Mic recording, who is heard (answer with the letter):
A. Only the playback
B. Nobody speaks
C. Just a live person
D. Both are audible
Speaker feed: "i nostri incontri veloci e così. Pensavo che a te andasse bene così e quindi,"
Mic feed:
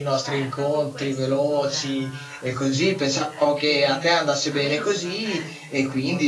D